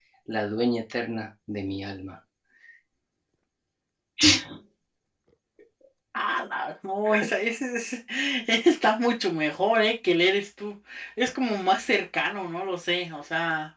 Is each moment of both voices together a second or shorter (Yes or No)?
Yes